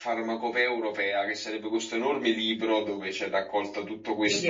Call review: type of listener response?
taking over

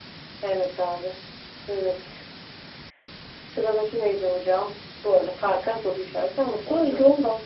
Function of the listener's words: listening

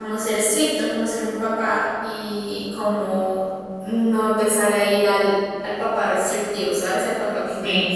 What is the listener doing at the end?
taking over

